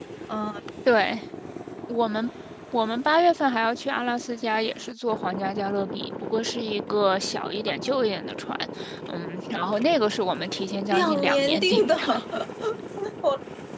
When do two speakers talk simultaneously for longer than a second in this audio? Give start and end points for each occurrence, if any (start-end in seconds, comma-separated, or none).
10.9-12.2